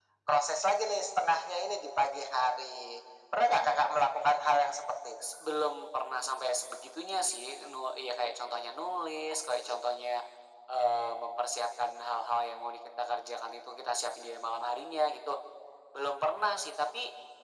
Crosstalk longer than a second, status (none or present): none